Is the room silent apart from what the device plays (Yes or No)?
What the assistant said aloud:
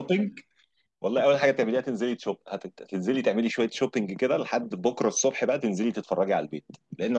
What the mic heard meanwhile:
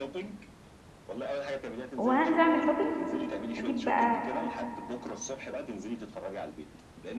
No